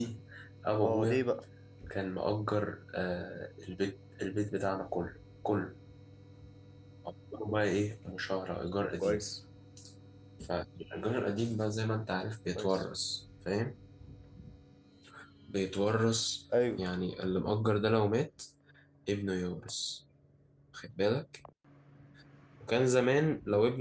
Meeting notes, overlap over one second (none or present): none